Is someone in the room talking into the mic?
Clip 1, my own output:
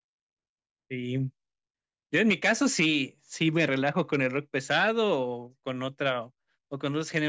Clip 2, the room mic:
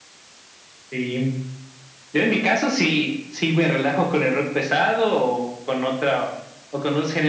No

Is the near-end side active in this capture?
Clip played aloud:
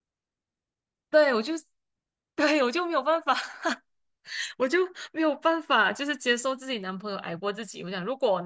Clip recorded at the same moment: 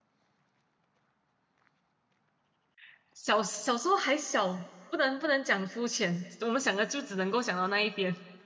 Yes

